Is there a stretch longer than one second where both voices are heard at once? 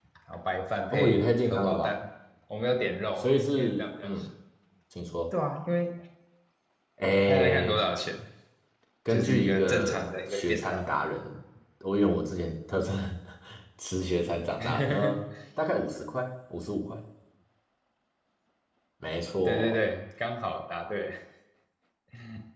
Yes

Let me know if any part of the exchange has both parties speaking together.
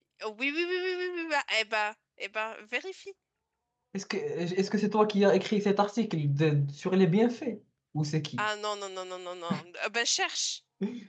No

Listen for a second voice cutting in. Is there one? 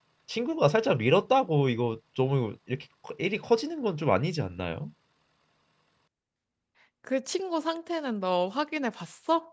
No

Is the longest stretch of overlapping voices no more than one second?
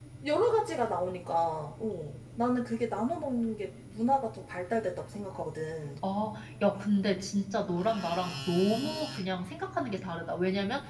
Yes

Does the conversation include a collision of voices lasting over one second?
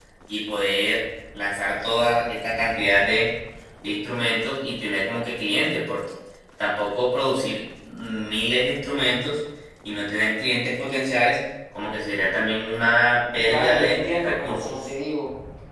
Yes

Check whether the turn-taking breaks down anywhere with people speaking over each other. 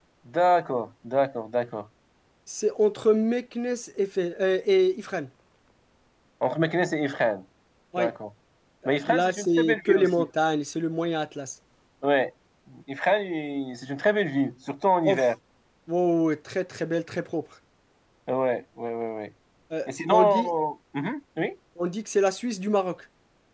Yes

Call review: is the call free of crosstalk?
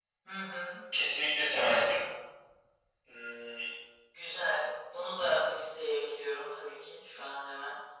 Yes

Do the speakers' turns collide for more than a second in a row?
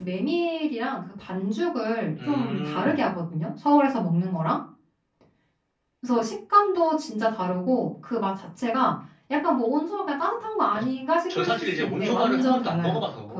Yes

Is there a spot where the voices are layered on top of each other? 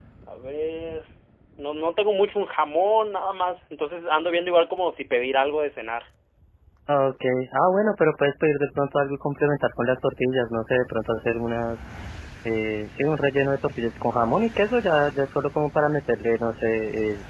No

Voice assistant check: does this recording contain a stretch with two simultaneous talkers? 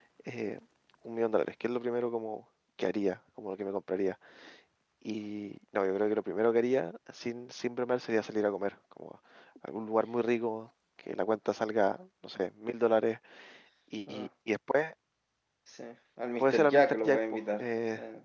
Yes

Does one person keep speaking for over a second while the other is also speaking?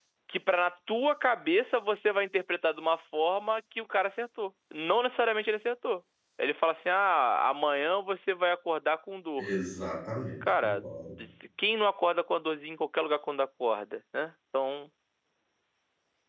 No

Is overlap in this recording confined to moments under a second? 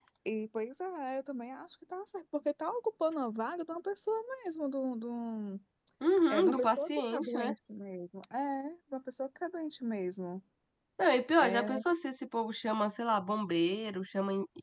No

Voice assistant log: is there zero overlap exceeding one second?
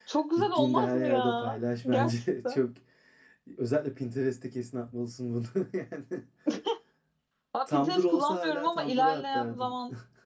No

